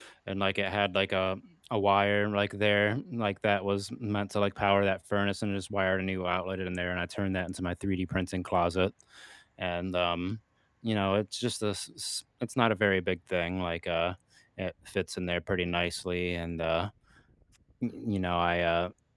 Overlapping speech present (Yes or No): No